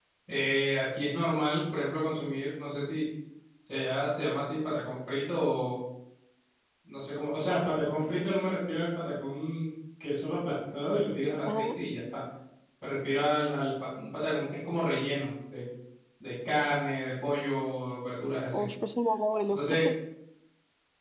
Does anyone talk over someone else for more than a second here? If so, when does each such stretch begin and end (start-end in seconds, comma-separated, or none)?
none